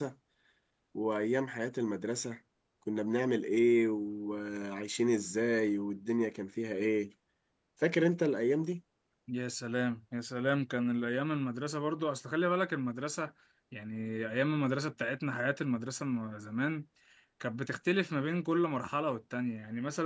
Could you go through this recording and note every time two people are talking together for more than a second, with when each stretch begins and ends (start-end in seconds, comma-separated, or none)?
none